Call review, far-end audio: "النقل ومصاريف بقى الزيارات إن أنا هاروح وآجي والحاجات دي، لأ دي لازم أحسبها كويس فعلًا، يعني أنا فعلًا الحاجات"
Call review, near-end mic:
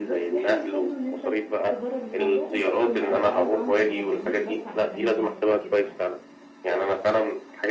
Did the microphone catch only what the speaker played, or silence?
No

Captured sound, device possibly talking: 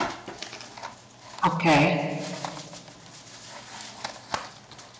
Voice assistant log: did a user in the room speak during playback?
Yes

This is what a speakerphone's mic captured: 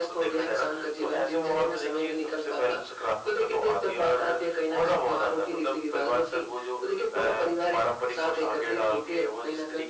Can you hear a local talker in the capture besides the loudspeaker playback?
No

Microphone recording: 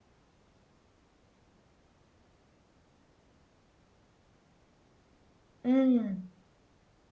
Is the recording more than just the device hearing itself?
Yes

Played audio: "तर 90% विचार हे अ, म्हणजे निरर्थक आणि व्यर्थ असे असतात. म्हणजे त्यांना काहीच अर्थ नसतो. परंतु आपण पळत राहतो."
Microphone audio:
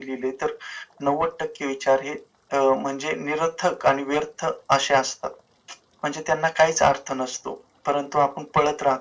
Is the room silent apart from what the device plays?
Yes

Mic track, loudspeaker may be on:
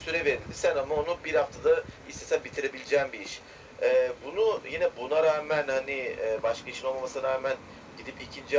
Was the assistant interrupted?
No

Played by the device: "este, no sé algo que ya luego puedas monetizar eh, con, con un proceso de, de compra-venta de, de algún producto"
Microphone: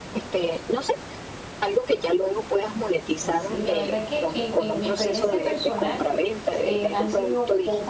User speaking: Yes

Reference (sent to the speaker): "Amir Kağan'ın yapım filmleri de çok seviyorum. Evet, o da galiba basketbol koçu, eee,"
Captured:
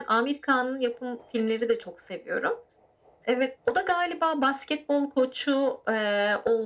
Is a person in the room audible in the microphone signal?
No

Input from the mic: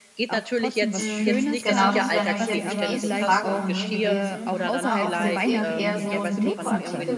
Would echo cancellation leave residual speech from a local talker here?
Yes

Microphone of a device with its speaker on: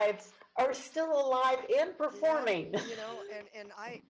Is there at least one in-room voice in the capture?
Yes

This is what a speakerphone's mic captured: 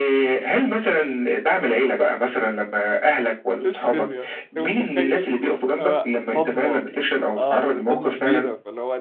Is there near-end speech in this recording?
Yes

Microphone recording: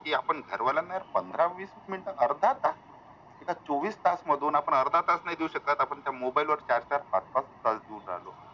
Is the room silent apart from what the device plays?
Yes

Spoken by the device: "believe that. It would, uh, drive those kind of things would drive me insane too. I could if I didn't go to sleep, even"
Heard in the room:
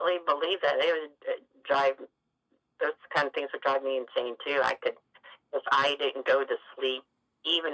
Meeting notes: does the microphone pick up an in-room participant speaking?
No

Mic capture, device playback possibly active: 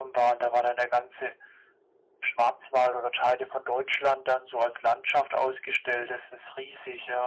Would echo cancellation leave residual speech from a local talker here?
No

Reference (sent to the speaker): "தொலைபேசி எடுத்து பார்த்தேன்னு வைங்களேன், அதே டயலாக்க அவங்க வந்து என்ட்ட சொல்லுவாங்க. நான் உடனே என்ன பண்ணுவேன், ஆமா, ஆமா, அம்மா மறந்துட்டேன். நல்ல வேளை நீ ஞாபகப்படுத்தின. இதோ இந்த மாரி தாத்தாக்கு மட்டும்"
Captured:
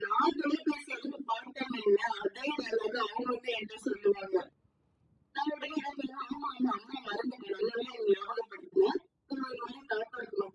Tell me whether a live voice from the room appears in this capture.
No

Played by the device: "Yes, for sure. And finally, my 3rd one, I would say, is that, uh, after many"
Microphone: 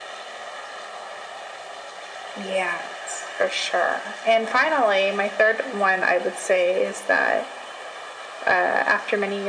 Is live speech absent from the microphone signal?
Yes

